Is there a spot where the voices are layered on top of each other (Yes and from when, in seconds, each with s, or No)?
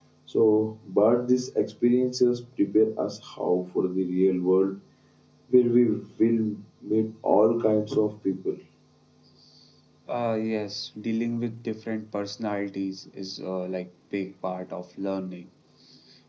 No